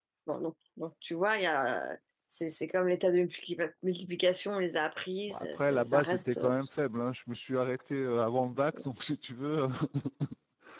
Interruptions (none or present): present